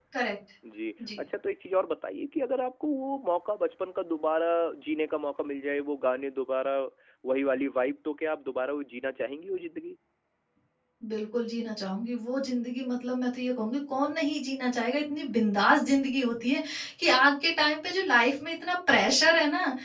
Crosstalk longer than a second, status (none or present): none